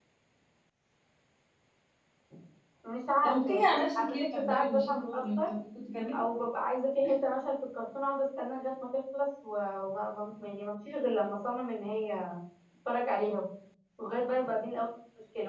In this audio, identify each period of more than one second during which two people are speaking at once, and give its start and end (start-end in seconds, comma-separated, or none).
3.2-5.5